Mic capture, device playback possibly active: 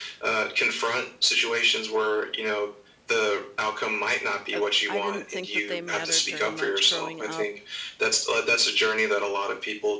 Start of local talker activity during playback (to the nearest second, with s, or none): 5 s